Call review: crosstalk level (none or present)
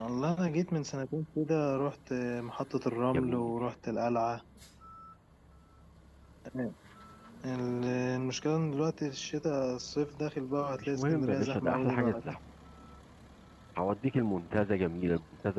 present